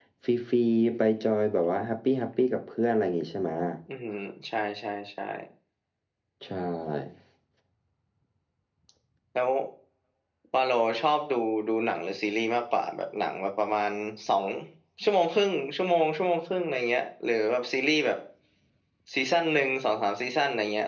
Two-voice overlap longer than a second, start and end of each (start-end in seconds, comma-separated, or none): none